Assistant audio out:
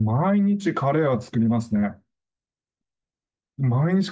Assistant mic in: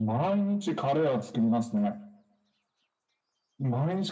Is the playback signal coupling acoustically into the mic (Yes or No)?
Yes